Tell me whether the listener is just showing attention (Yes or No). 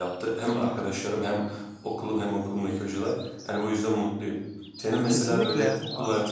Yes